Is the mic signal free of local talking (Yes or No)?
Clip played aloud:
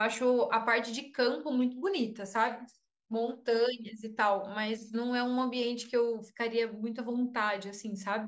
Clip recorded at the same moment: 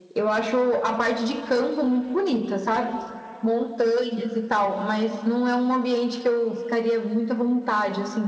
Yes